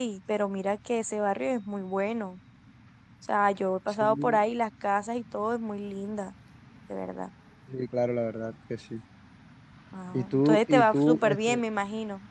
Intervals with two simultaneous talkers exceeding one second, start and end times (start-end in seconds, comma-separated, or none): 10.1-11.6